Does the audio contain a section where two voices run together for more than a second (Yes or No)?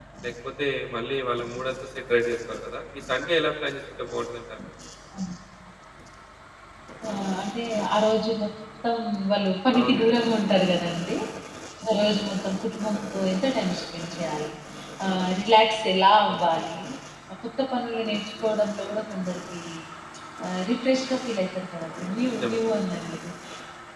No